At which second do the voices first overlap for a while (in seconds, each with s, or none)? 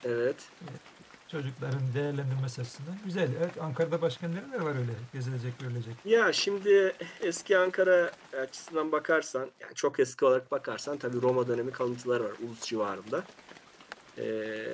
none